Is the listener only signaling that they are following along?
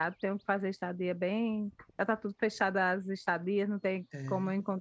Yes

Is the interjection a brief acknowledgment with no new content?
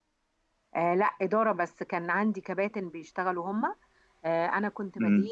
Yes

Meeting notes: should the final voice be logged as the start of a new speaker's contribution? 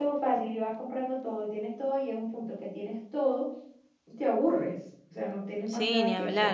Yes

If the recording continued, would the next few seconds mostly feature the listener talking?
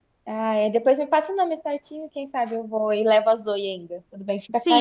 Yes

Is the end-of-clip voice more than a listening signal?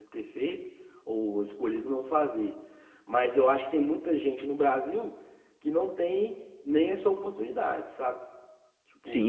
Yes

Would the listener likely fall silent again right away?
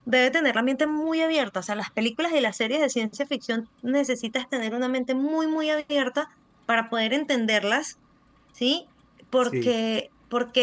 Yes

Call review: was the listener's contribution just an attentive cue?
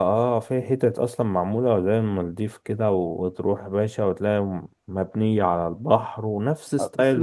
No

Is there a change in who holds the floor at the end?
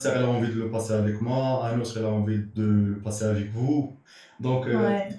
No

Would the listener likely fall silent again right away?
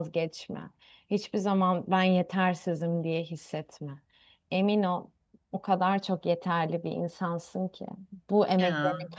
Yes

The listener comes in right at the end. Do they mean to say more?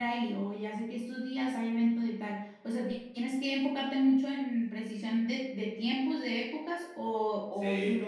Yes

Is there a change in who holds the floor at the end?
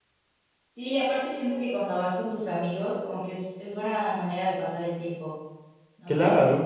Yes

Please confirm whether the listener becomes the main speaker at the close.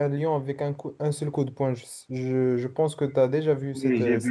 Yes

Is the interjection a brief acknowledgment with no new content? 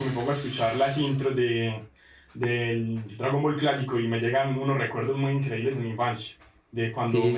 Yes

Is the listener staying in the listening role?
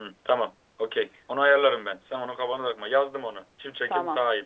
No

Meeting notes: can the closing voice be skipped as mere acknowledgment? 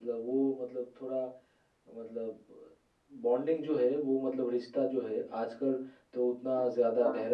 Yes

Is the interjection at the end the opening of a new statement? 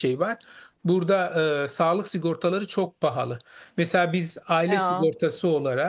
No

